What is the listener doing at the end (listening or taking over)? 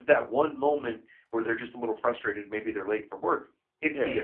listening